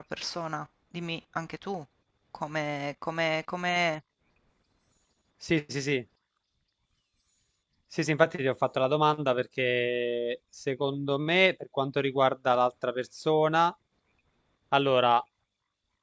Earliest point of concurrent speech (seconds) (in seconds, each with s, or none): none